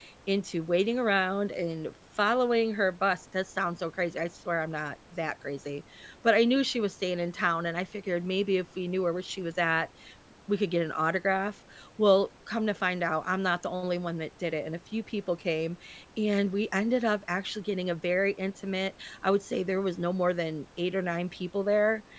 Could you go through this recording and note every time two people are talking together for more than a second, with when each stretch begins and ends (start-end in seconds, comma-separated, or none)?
none